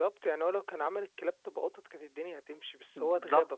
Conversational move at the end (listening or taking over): taking over